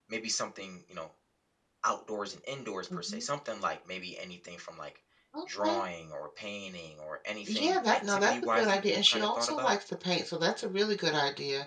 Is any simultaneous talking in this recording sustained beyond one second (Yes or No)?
Yes